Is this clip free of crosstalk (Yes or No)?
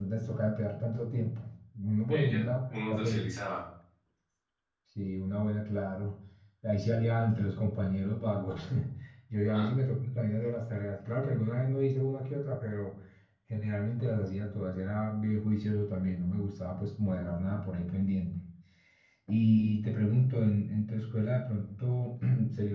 No